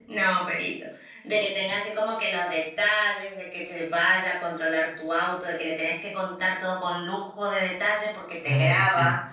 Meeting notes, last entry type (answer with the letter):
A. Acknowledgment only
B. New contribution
A